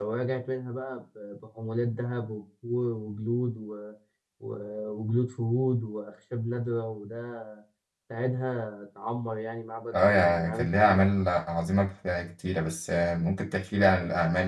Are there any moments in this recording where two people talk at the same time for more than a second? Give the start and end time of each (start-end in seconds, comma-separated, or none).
9.9-11.2